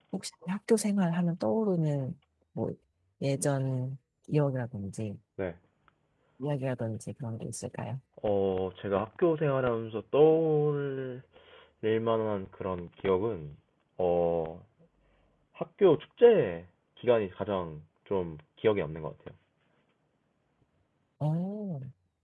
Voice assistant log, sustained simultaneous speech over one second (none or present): none